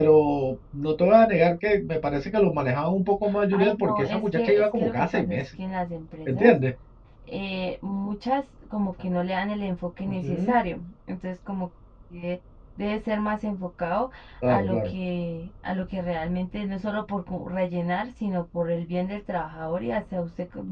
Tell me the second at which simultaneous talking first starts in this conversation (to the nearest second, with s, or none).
4 s